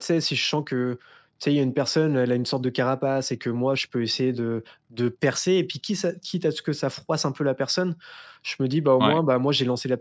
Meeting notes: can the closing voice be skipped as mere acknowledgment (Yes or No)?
Yes